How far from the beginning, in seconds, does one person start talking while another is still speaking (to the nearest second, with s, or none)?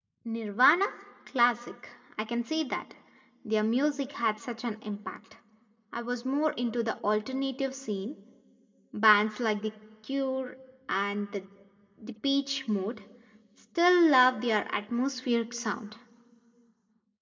none